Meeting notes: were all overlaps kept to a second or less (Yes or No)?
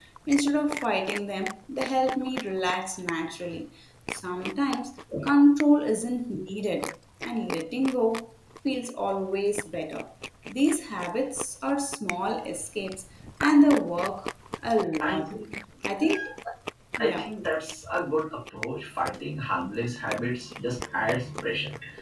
Yes